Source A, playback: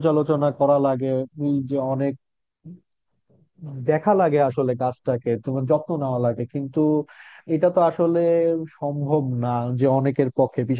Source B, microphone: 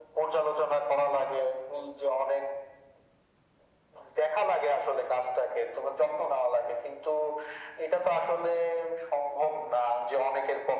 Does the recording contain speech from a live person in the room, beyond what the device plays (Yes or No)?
No